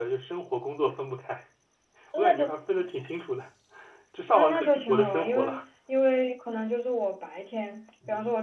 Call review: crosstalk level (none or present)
present